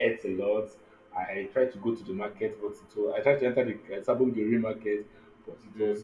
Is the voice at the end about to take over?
No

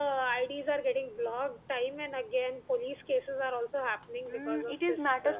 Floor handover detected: Yes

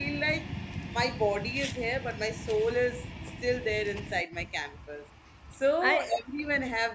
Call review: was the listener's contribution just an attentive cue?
Yes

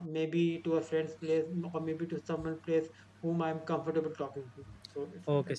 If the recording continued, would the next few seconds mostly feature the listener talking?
Yes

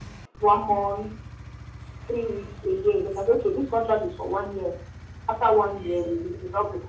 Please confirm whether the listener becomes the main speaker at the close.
No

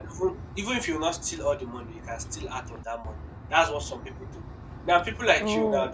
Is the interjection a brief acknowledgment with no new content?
Yes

